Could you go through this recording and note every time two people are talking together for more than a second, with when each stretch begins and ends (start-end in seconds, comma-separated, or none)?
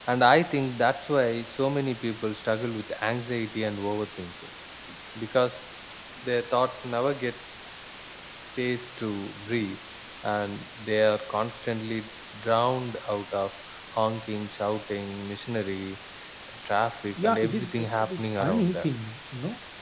17.2-18.9